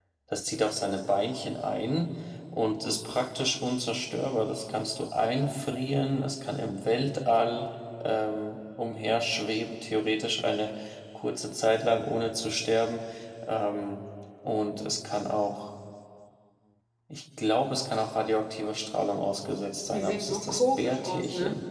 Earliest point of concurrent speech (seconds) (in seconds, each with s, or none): 19.9 s